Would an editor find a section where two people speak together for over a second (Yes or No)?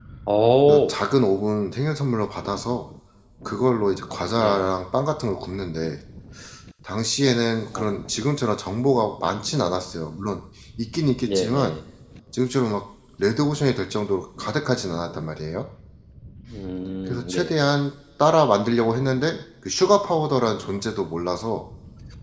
No